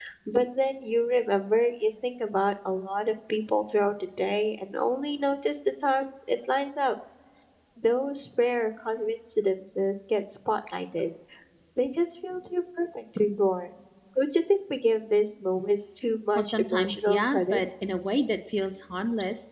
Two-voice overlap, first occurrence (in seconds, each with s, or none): 16.4 s